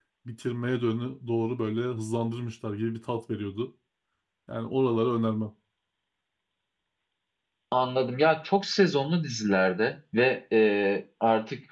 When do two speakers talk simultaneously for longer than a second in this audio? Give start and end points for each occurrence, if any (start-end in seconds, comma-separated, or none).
none